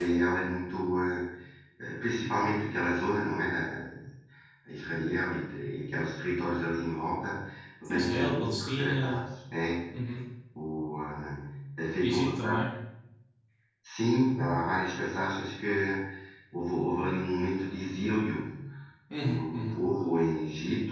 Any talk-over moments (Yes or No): Yes